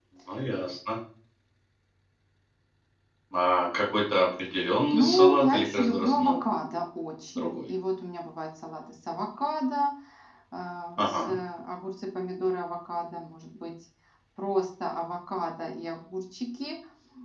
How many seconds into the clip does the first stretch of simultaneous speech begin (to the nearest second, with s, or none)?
5 s